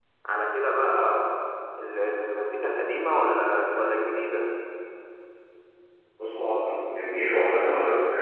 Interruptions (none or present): none